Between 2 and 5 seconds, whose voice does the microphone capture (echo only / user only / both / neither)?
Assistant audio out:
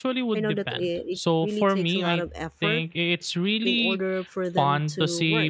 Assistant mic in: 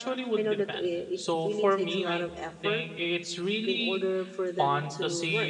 echo only